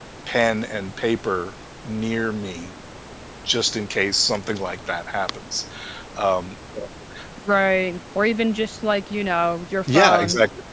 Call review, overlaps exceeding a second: none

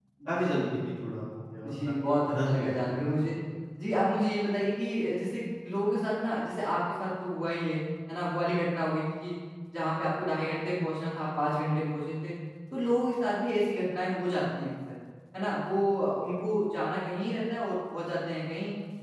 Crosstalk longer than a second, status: present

